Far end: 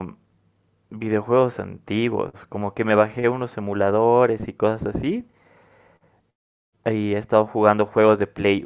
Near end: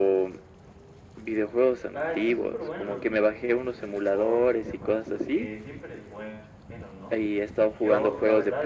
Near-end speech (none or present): present